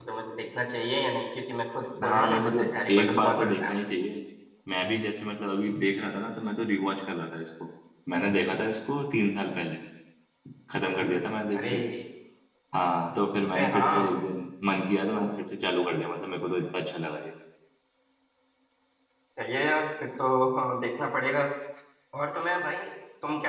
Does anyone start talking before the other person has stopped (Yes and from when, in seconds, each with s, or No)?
Yes, from 2.0 s